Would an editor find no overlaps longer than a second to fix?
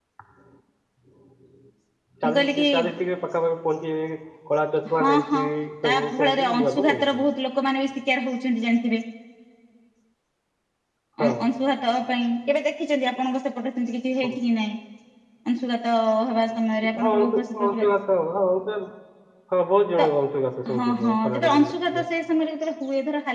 No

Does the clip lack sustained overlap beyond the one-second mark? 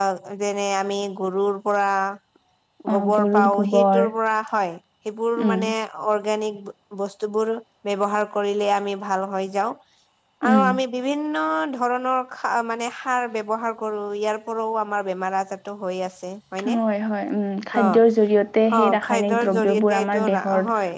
No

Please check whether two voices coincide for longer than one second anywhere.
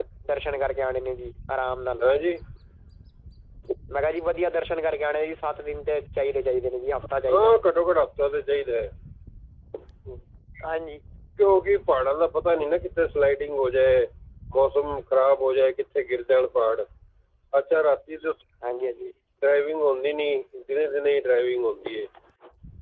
No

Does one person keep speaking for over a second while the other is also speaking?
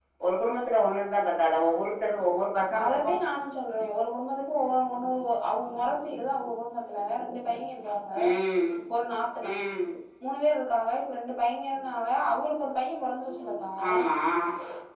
No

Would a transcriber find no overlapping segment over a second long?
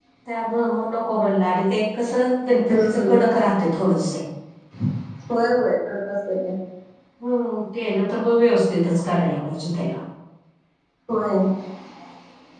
Yes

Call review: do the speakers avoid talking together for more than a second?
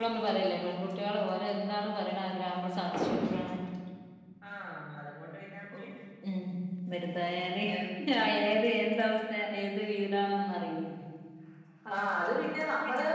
Yes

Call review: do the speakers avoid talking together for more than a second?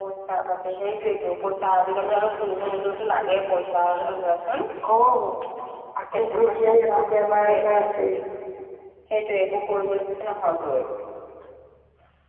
No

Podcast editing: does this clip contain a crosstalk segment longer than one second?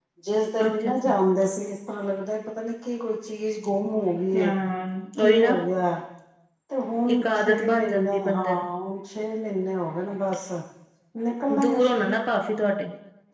Yes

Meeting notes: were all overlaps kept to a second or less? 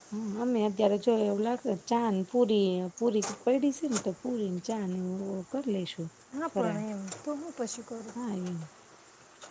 Yes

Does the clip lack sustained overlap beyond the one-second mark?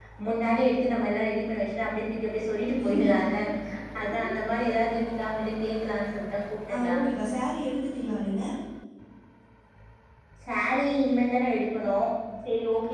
Yes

